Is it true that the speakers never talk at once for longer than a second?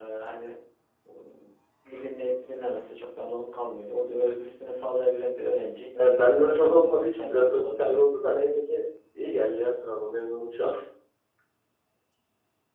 No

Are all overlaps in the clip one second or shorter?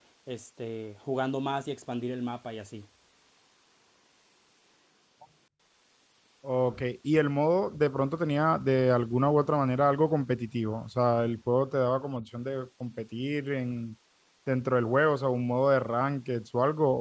Yes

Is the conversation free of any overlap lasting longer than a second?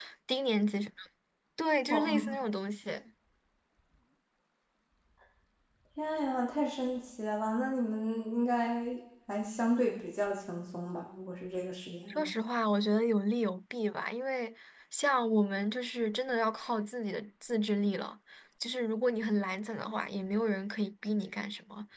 Yes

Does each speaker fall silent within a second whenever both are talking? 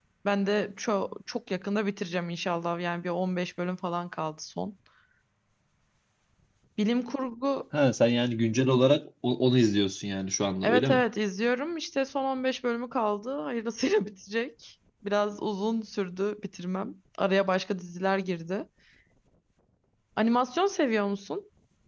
Yes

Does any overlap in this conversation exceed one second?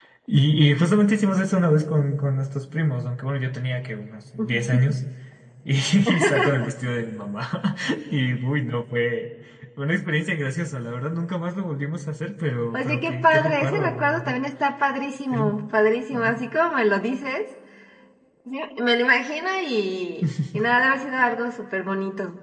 Yes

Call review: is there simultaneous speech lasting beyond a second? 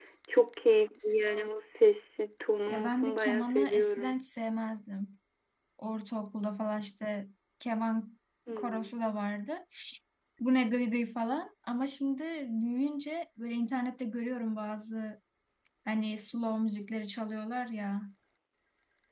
Yes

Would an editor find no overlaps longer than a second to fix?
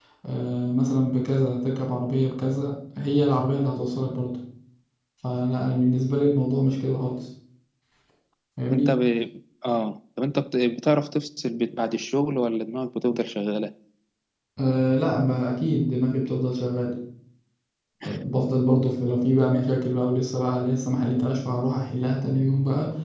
Yes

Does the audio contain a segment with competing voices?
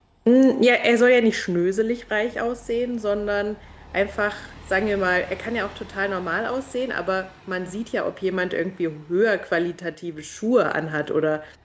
No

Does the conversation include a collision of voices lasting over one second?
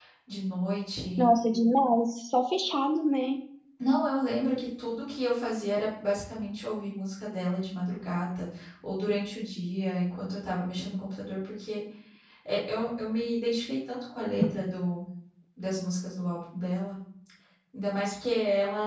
No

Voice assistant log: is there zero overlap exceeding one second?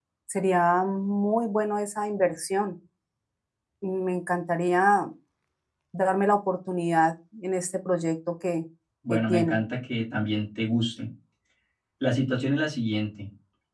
Yes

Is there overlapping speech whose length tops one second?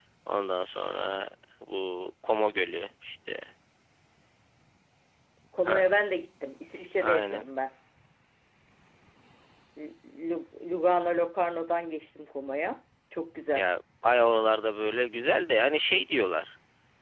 No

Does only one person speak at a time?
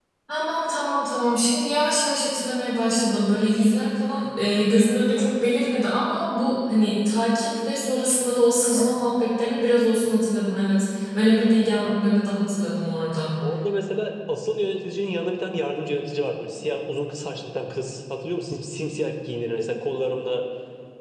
Yes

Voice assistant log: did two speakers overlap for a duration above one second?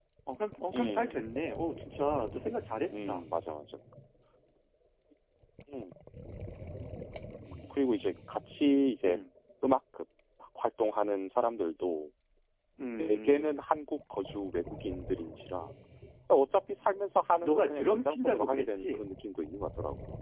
Yes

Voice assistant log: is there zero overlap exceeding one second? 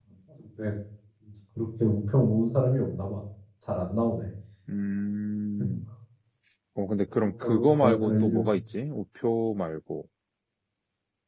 No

